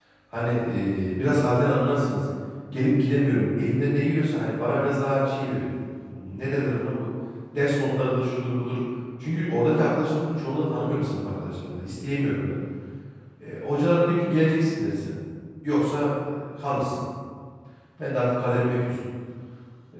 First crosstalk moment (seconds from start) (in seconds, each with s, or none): none